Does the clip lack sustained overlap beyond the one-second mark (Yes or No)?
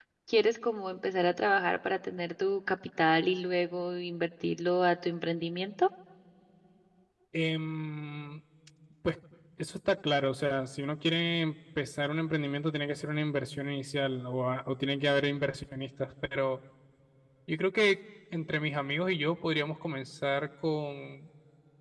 Yes